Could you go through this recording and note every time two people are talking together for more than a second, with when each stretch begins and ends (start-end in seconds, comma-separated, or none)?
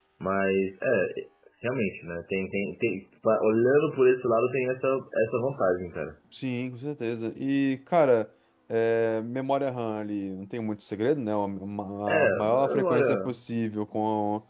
12.1-13.3